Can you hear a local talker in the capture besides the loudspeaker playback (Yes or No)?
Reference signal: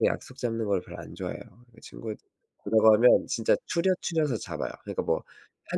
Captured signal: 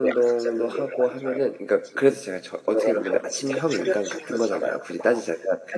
Yes